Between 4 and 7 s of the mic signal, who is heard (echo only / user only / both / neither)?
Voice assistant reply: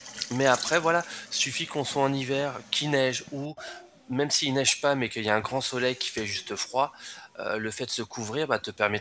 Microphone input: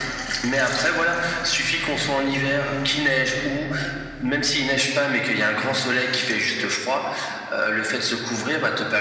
echo only